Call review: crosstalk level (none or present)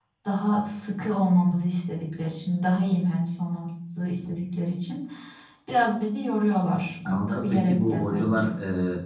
present